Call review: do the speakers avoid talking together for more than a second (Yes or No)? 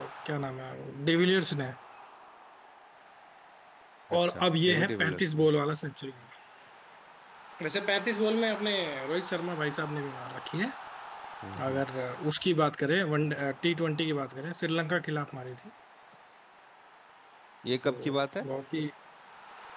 No